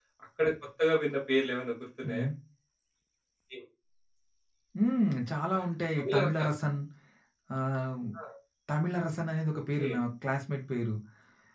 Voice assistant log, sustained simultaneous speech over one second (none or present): none